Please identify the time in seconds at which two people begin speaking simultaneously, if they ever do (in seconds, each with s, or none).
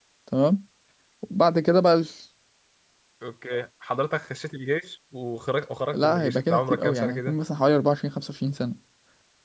5.9 s